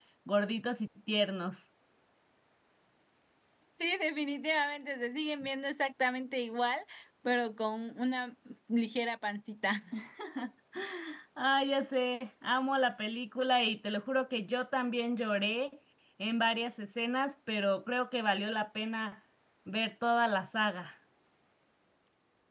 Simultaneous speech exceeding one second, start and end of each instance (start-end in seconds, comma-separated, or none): none